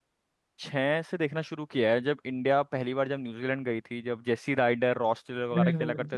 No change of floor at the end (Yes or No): No